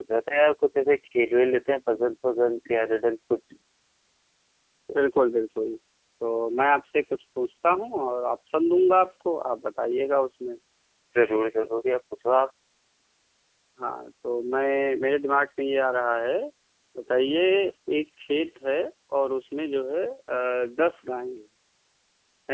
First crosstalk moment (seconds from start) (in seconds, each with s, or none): none